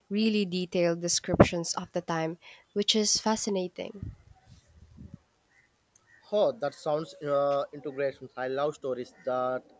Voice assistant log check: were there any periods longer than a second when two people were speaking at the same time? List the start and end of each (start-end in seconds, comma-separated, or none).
none